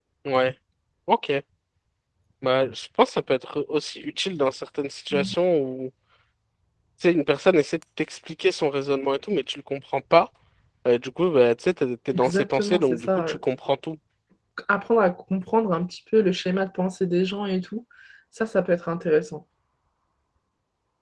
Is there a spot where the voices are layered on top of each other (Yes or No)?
Yes